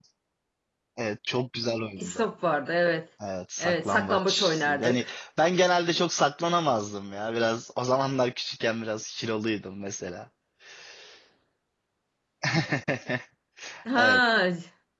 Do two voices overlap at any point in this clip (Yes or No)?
Yes